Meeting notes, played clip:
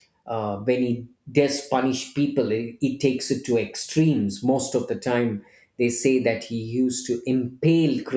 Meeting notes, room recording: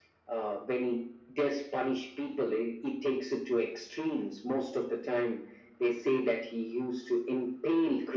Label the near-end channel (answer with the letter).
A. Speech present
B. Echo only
B